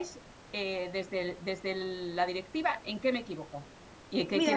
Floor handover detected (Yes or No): Yes